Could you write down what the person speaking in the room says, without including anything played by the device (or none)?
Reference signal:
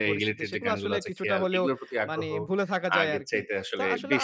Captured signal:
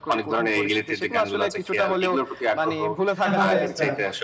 আচ্ছা।